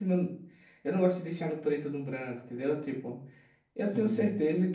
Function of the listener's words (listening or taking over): listening